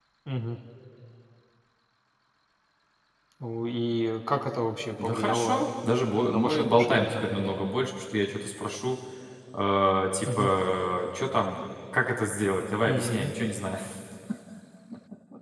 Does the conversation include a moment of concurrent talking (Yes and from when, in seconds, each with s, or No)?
Yes, from 5.0 s